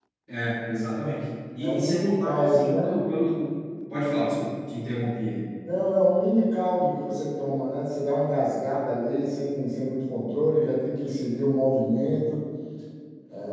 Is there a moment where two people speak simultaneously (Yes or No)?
Yes